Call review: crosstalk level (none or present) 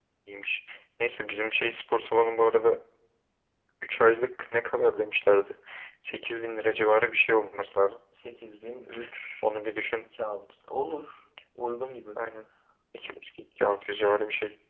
none